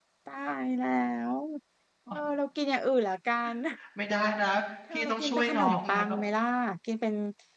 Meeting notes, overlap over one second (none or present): present